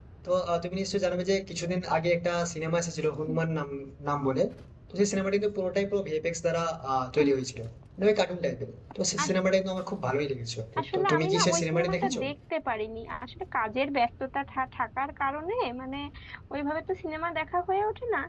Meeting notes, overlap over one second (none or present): present